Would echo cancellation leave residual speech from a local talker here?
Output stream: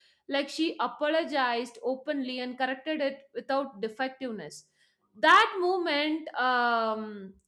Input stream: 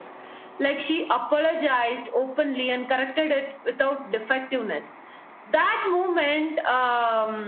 No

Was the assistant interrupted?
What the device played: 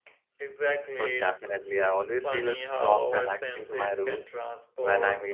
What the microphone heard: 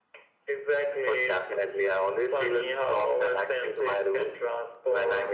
No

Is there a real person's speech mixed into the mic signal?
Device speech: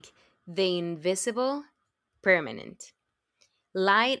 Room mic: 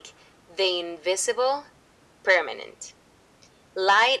No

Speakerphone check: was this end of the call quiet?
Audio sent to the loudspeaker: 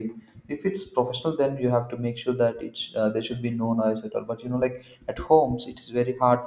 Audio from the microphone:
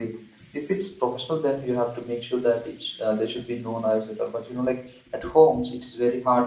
Yes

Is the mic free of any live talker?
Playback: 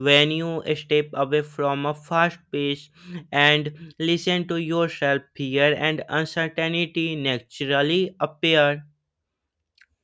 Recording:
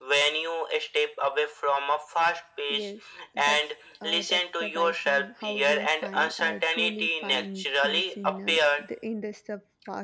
No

